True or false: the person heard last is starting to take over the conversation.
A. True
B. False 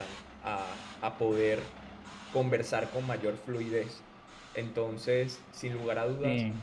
B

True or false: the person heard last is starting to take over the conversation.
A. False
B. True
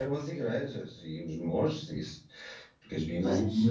A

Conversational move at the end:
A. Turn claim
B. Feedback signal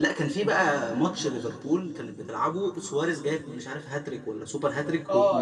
A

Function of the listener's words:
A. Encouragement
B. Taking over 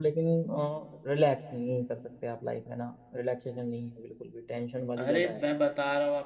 B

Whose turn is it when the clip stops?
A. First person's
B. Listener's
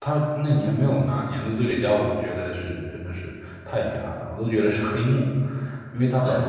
A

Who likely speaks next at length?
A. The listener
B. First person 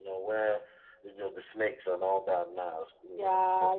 A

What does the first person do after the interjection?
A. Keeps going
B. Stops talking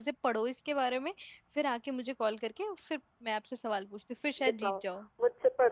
B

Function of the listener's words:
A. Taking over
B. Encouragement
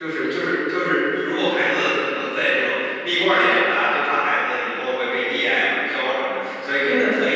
B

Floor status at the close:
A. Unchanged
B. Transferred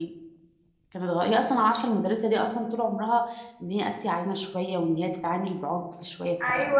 B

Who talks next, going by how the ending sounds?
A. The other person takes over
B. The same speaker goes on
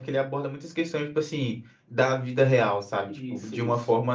B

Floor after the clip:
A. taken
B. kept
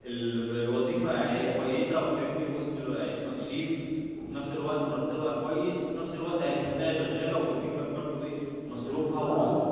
A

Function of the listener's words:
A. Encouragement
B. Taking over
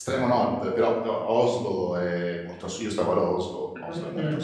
A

